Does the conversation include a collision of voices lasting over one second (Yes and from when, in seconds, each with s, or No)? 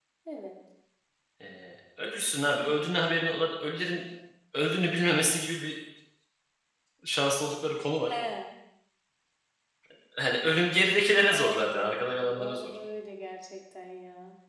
Yes, from 11.3 s